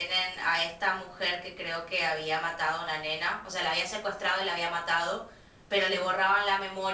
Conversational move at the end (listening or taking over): listening